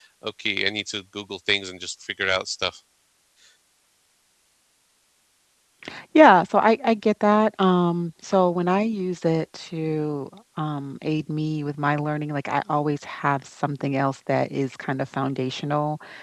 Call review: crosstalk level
none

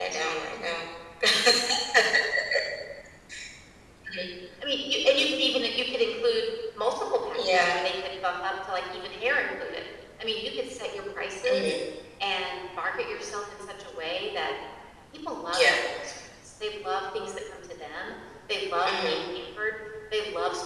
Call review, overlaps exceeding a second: none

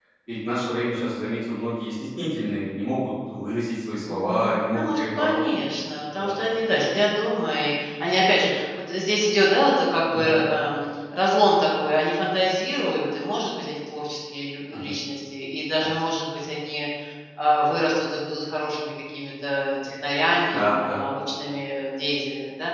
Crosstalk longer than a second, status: present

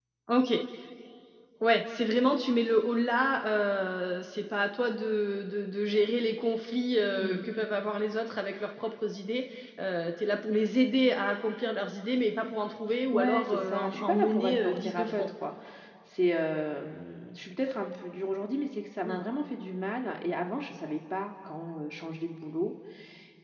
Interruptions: present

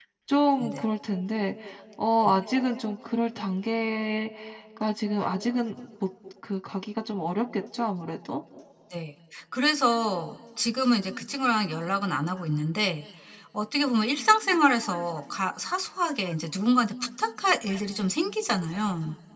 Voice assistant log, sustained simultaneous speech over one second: none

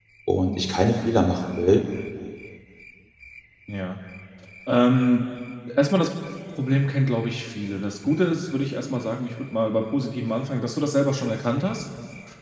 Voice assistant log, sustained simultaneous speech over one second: none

